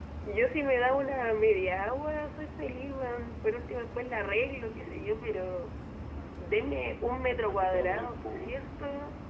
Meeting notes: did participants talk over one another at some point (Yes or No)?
Yes